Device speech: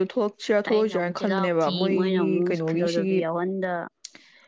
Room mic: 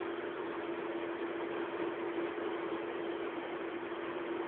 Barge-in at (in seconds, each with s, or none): none